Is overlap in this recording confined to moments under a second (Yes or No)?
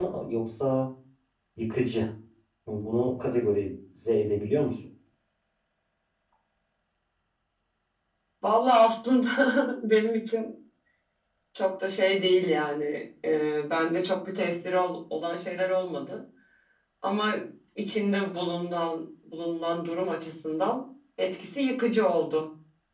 Yes